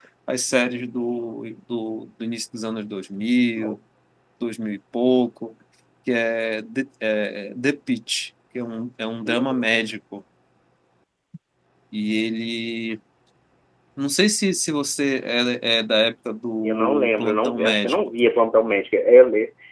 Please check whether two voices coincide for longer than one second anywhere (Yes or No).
Yes